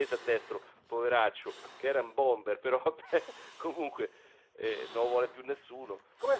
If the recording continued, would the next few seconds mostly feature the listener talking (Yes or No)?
Yes